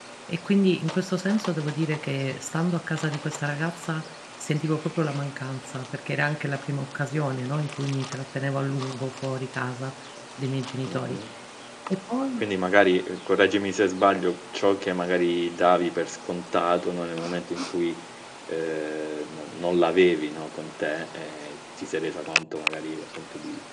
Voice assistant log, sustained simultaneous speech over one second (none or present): none